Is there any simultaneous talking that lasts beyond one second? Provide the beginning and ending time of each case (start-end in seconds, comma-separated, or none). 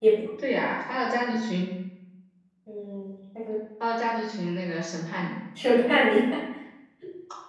none